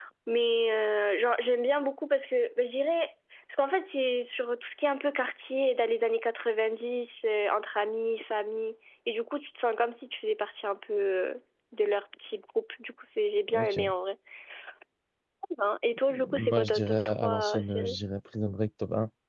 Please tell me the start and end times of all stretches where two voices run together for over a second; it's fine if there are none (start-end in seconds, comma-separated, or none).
16.4-17.9